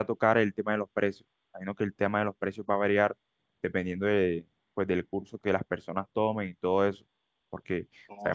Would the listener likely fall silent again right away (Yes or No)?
Yes